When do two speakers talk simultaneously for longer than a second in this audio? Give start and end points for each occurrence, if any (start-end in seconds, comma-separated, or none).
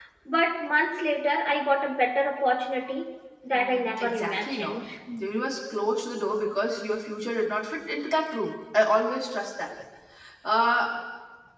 3.5-4.8